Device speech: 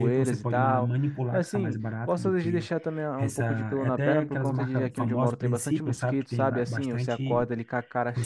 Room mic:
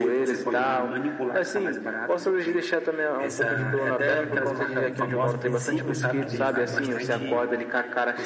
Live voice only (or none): que eu te falei sobre isso, porque eu também, se fosse só por mim, cara, eu não saberia disso, não.